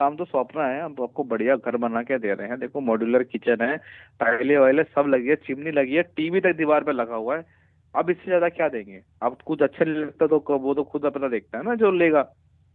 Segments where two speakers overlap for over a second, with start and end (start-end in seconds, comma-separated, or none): none